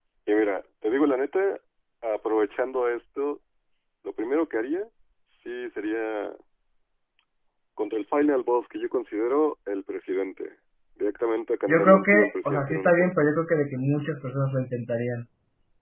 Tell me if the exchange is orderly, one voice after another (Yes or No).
No